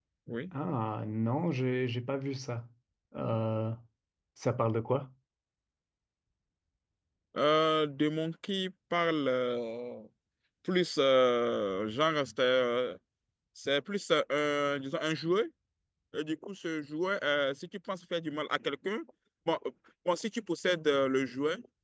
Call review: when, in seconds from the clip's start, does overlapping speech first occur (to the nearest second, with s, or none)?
none